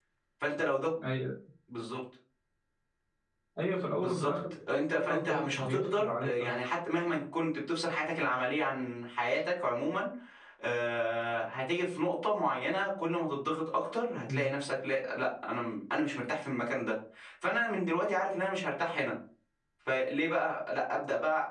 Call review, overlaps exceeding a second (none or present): present